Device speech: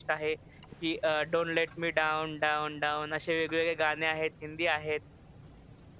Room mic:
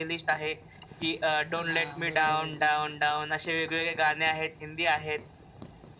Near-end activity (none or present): present